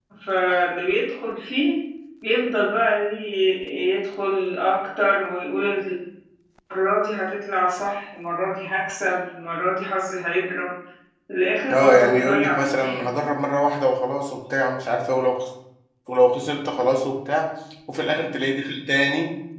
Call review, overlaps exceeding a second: present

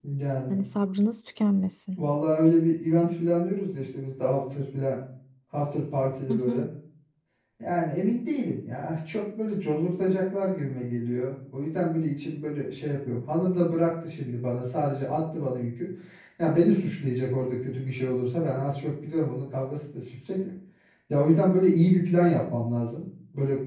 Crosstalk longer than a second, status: none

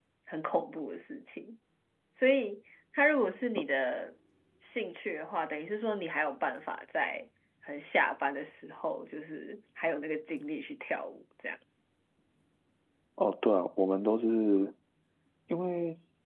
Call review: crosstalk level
none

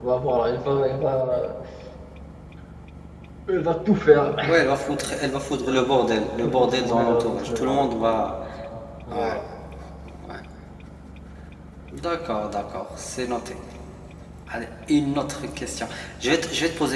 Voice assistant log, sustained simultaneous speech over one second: present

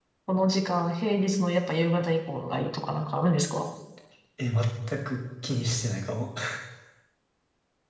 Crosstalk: none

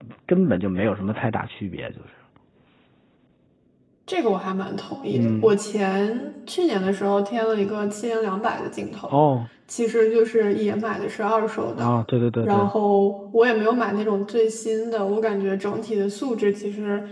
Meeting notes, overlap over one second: none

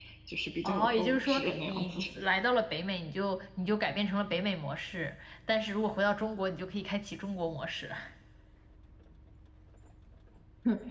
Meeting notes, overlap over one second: present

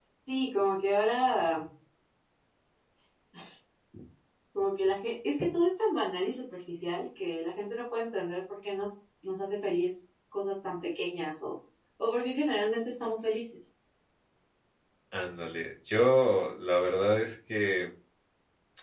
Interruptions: none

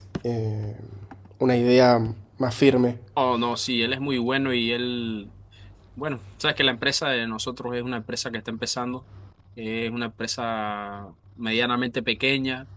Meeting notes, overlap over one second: none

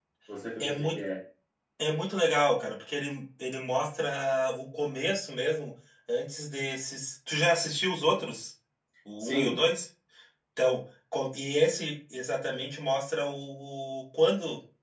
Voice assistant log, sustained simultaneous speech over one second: none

